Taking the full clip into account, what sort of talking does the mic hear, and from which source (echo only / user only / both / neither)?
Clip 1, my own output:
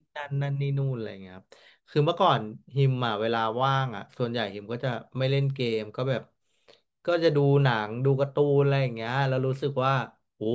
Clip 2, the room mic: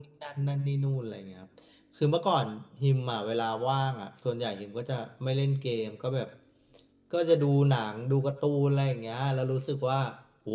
echo only